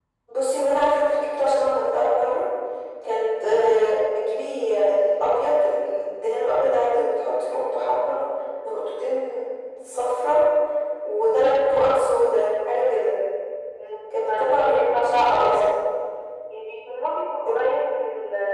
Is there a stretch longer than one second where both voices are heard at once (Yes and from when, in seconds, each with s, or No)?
Yes, from 14.2 s